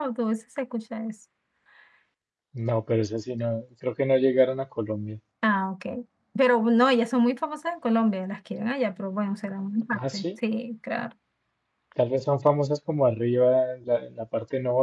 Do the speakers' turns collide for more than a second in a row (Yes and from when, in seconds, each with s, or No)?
No